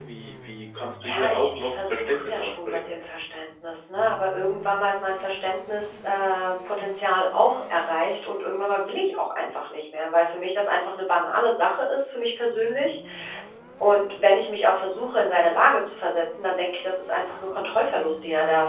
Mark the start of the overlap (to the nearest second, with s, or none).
1 s